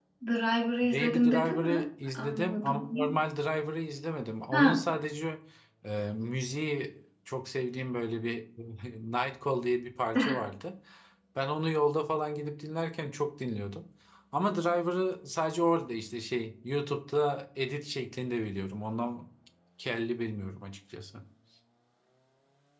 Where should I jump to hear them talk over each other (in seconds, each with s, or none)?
0.8 s